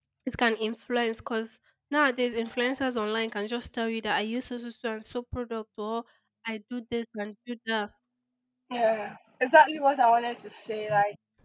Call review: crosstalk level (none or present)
none